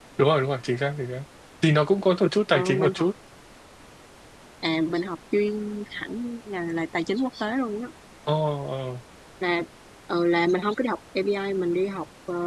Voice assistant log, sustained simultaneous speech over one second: none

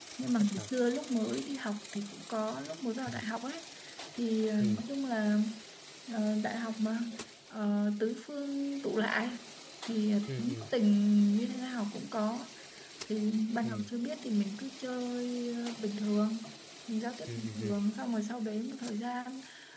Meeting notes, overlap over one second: none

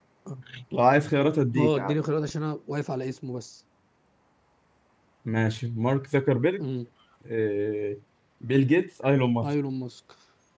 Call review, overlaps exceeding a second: none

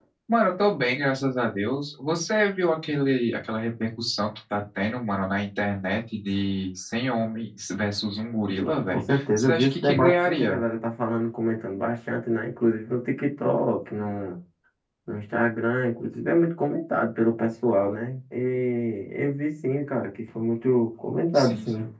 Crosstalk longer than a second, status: present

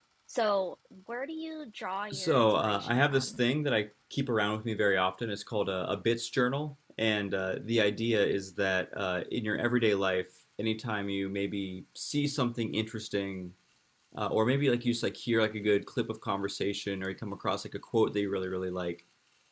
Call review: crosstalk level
present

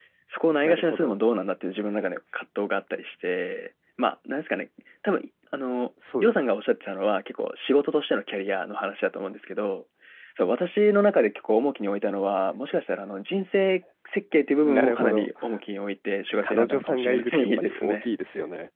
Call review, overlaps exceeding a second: present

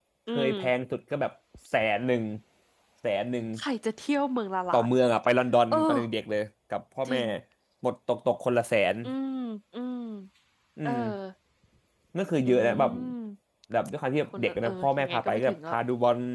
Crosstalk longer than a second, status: present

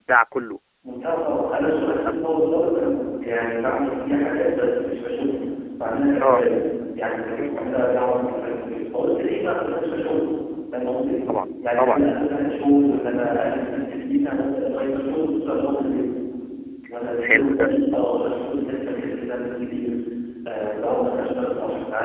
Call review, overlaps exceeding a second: none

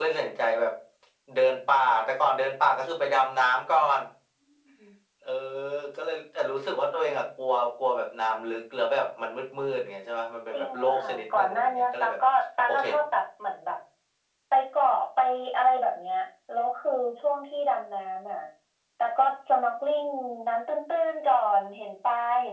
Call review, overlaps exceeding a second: present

